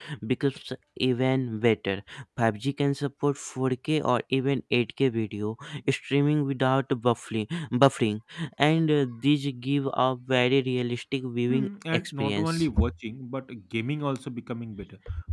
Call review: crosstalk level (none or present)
present